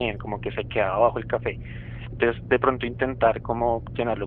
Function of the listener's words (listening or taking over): listening